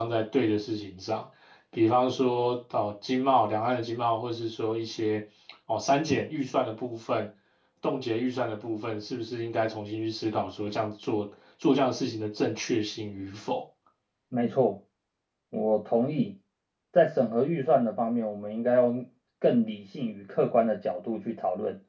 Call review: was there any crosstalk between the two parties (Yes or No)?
No